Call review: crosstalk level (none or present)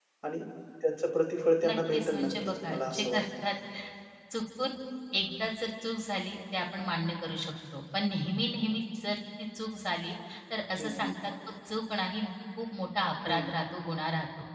present